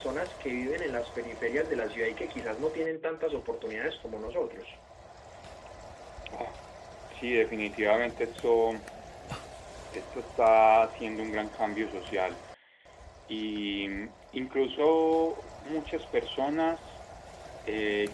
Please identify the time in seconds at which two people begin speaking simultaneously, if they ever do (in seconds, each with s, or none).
none